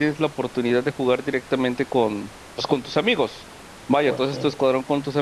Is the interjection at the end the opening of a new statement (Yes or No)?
No